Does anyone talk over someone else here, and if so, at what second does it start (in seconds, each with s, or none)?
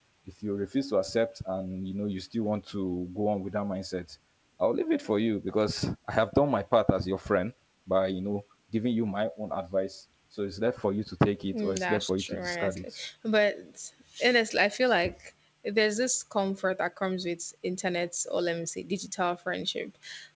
11.5 s